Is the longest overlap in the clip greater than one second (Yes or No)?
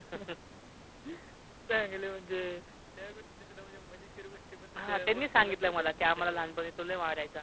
Yes